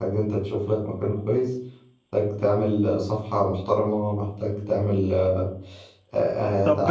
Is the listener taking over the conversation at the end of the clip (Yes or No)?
Yes